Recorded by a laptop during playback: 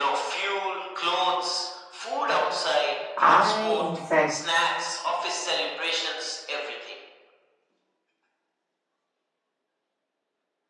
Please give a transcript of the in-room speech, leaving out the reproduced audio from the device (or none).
I, in fact,